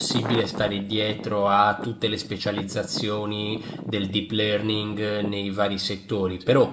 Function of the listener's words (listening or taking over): listening